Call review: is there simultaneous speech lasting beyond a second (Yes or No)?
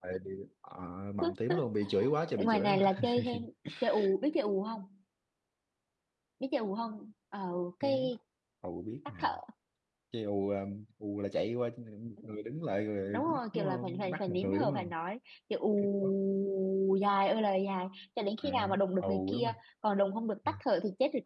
Yes